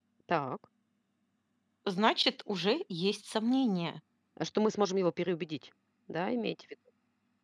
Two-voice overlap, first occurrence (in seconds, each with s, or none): none